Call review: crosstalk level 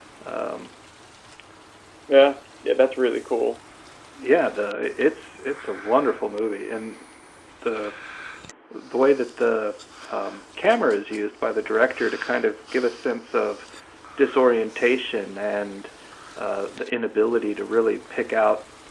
none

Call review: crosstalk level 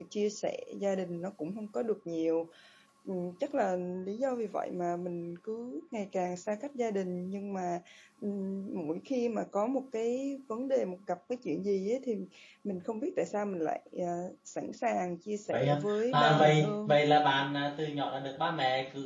present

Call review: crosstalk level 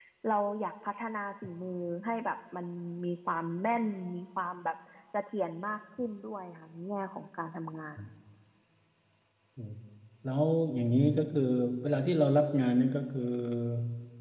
none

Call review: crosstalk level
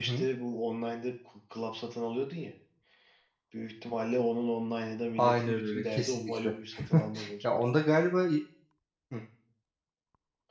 present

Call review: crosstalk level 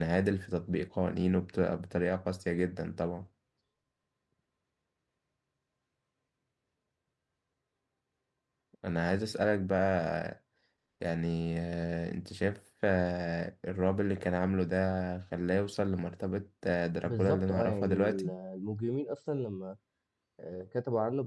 present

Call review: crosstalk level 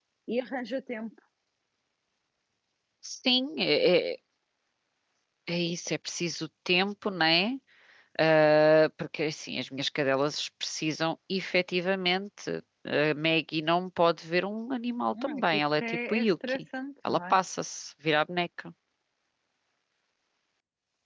present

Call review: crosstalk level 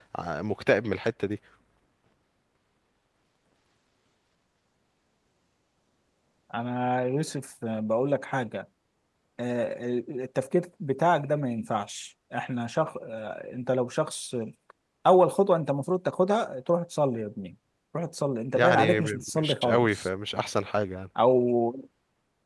present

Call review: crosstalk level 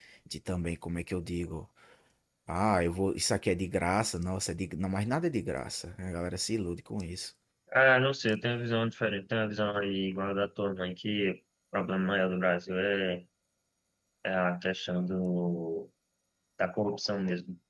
none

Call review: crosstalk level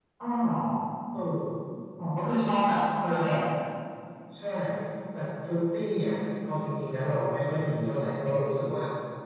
none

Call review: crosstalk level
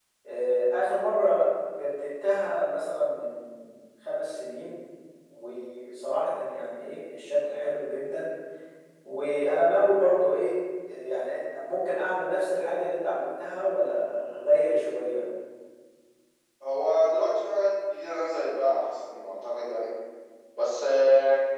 none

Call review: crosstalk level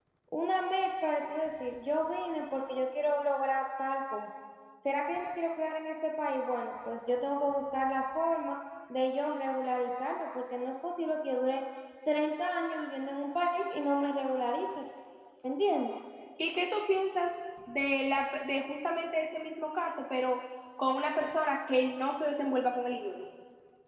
none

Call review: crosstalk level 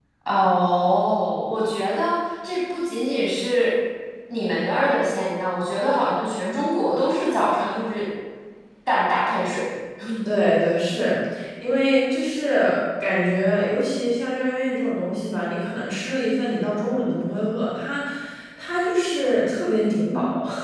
none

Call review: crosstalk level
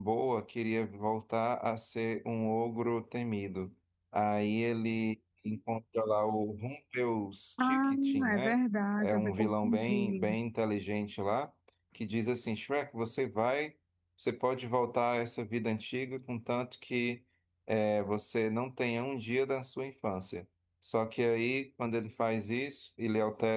present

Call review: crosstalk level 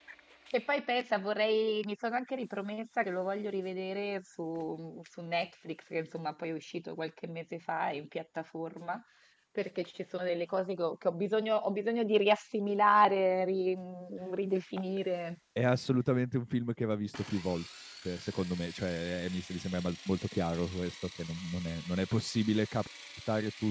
none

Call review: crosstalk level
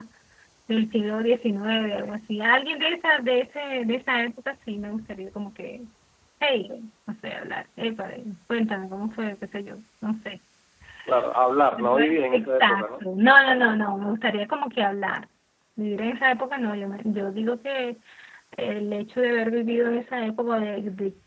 present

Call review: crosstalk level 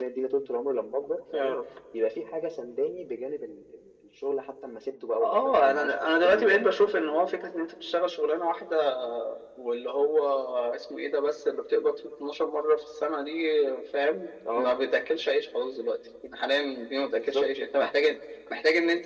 present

